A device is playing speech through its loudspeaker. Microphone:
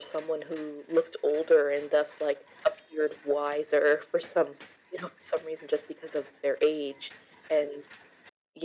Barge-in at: none

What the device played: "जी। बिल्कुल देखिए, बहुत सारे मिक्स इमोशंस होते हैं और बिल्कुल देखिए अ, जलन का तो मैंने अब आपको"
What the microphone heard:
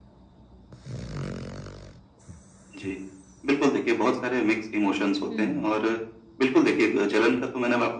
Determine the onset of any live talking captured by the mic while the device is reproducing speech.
5.3 s

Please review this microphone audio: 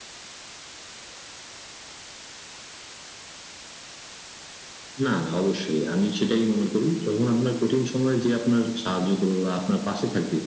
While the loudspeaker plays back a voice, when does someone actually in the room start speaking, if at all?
none

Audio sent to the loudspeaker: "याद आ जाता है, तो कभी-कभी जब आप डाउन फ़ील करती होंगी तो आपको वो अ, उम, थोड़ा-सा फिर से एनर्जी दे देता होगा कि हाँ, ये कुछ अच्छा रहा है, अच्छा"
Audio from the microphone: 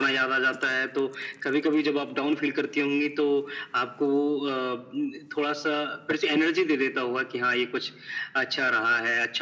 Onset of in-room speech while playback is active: none

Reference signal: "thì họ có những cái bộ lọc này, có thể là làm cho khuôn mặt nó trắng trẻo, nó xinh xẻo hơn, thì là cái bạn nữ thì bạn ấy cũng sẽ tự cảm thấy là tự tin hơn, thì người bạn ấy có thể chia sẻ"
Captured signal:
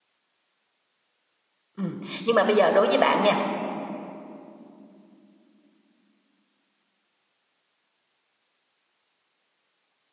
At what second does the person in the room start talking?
1.8 s

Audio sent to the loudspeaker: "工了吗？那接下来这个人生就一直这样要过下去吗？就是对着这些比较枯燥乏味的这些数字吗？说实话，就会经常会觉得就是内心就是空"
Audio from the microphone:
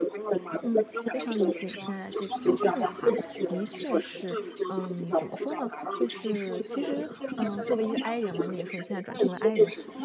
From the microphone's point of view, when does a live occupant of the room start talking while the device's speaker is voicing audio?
0.6 s

